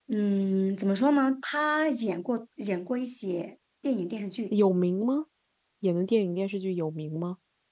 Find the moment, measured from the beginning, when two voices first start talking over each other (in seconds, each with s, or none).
none